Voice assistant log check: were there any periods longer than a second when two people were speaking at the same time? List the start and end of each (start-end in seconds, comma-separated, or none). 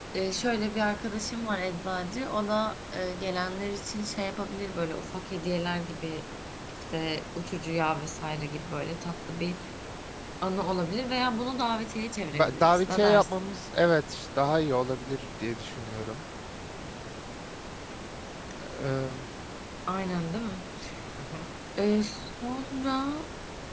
12.3-13.6